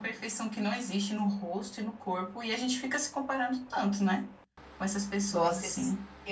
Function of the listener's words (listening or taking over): taking over